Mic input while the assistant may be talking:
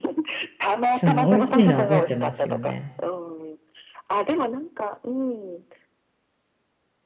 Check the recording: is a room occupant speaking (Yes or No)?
Yes